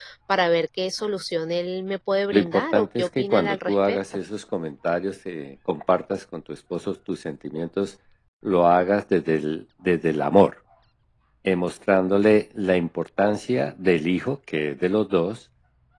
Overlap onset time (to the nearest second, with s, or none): 2 s